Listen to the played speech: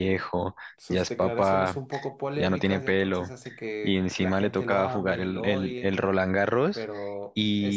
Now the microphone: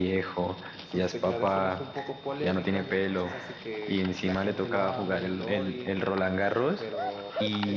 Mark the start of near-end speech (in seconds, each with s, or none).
none